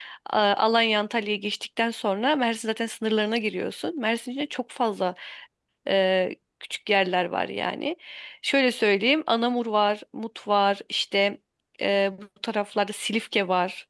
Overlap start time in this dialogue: none

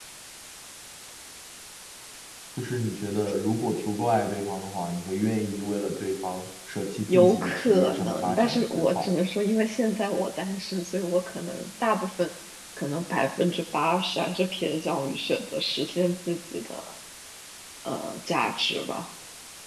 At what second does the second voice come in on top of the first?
7 s

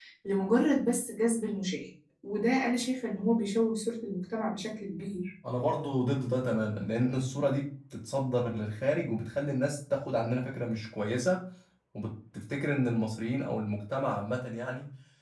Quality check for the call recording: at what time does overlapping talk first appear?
none

